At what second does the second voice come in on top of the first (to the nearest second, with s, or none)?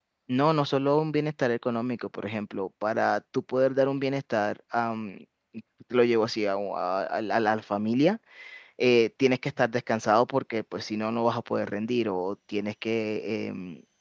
none